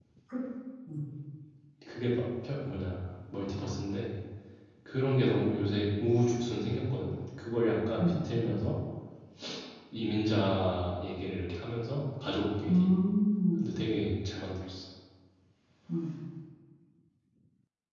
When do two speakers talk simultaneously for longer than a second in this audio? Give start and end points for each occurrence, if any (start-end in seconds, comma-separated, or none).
none